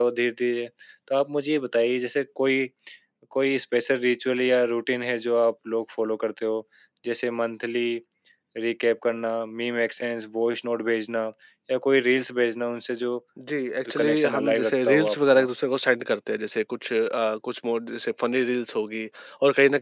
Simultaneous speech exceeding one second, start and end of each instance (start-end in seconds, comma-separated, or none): 14.0-15.5